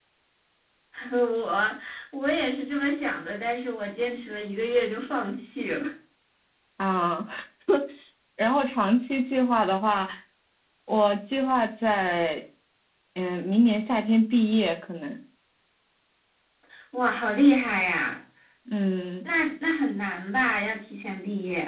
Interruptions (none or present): none